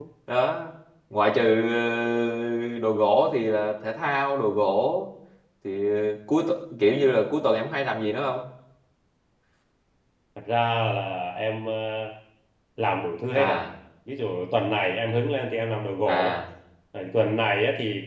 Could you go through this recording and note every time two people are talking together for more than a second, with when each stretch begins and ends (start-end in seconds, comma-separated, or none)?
none